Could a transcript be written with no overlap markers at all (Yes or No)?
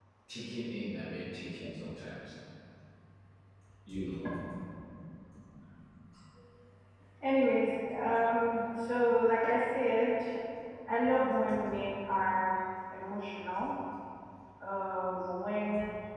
Yes